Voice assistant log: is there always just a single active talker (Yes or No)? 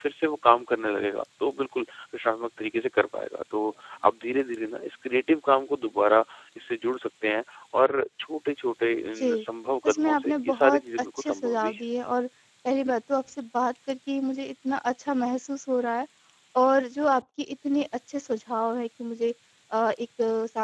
No